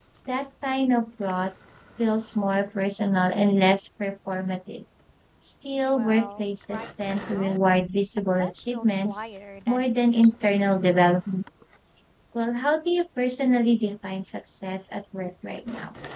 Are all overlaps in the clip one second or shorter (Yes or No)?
No